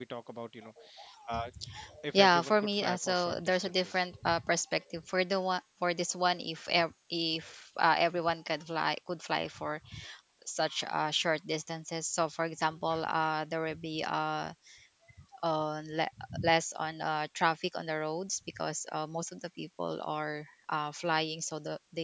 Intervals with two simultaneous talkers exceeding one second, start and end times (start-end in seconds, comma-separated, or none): 2.1-4.1